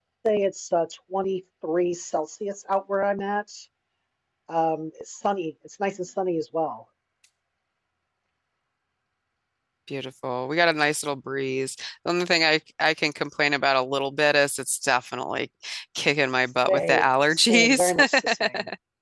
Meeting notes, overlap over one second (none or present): present